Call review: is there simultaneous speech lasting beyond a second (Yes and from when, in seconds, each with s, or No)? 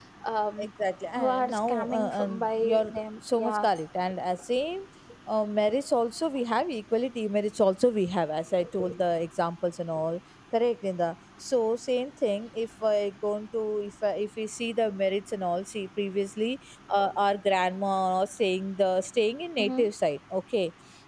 Yes, from 1.2 s